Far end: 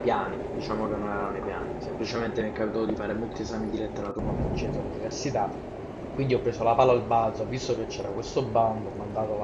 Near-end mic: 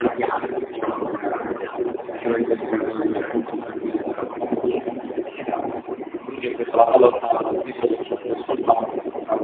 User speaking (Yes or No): Yes